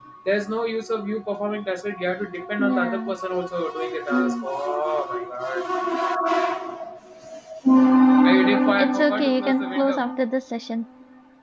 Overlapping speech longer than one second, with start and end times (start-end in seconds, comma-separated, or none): 8.8-10.3